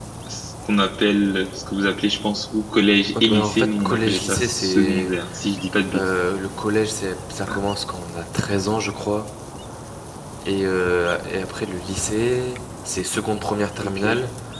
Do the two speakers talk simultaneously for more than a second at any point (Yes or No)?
Yes